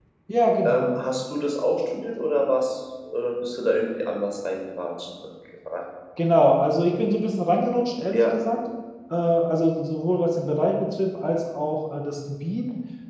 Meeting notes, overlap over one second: none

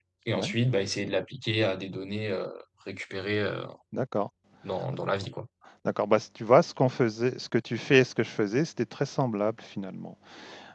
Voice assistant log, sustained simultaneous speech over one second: none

